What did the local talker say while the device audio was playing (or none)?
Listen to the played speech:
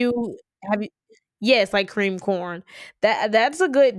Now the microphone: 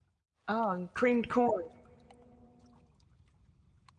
oh, and creamed corn.